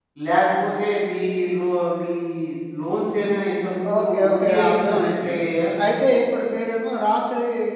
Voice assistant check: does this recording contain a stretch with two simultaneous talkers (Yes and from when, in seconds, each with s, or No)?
Yes, from 3.8 s